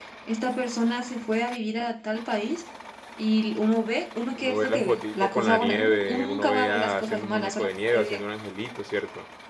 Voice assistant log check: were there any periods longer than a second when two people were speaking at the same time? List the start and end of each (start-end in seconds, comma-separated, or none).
4.4-8.0